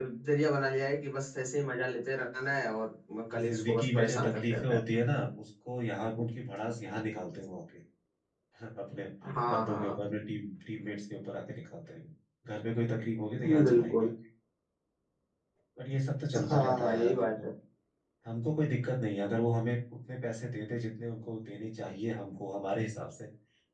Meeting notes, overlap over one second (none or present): present